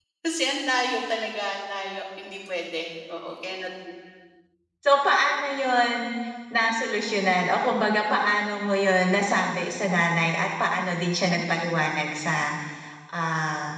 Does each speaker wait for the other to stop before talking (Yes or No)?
Yes